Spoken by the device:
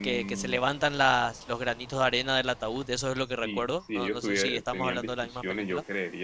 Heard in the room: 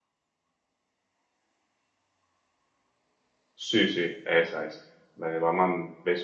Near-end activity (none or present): present